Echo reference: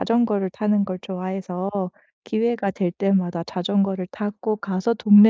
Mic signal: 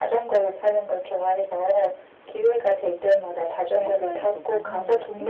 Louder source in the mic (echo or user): echo